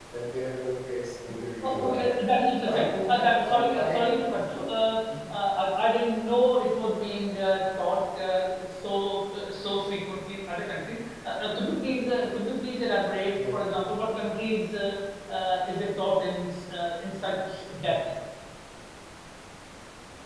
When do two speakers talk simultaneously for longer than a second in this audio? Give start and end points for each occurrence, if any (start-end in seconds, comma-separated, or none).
2.6-4.0